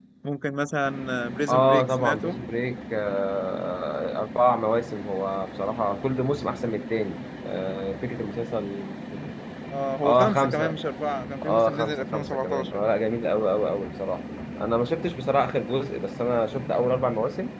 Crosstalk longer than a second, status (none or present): present